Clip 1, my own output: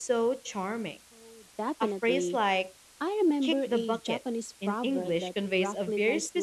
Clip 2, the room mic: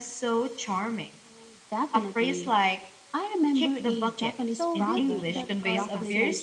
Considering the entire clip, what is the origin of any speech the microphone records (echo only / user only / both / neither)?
both